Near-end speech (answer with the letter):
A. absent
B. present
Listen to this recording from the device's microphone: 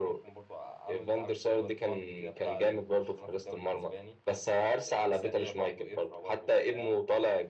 B